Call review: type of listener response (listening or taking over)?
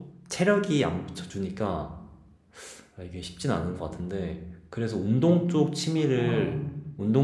listening